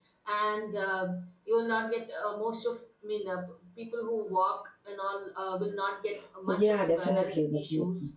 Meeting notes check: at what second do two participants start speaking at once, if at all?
6.5 s

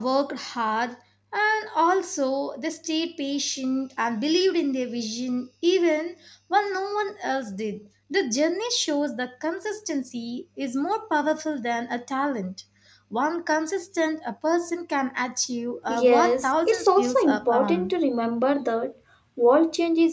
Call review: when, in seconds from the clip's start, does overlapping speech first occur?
15.9 s

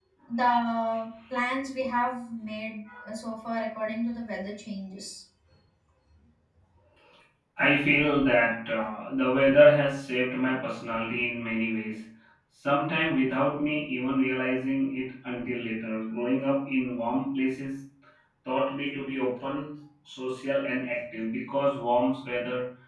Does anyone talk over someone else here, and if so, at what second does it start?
none

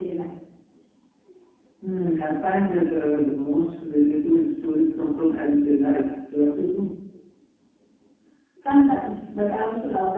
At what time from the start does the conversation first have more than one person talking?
none

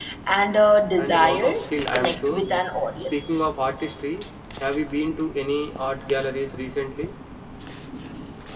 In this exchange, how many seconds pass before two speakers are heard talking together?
1.0 s

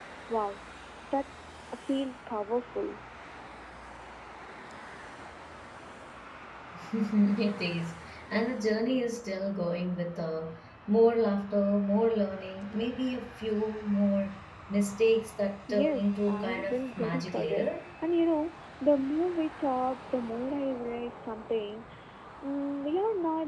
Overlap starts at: 15.7 s

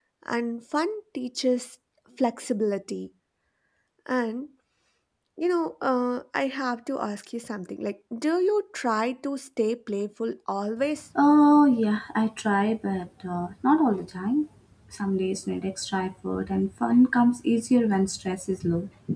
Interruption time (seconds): none

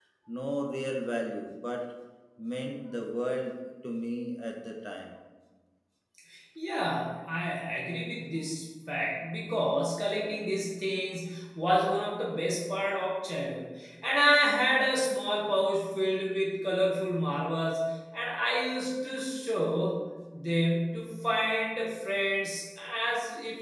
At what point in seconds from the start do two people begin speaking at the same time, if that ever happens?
none

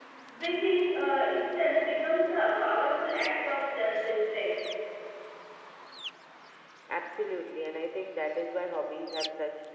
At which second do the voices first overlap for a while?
none

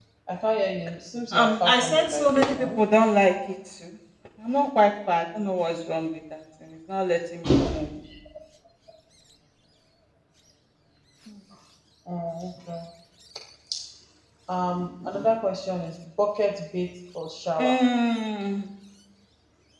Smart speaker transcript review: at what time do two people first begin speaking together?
1.3 s

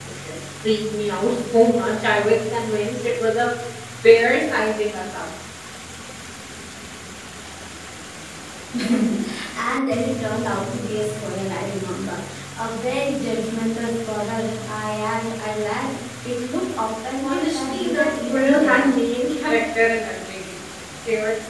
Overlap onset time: 17.2 s

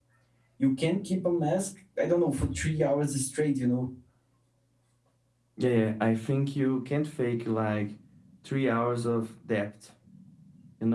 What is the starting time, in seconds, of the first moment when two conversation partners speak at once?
none

